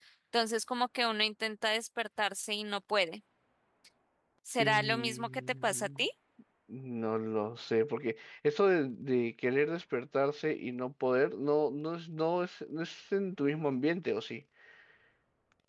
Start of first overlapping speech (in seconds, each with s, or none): 4.6 s